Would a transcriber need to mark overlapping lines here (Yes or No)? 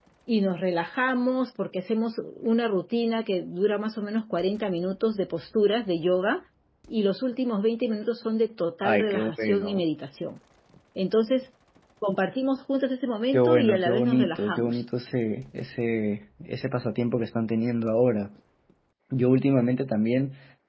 Yes